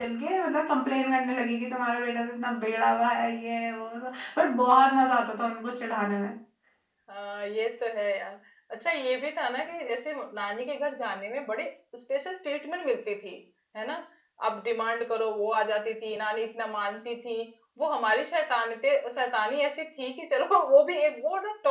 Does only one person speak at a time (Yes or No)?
Yes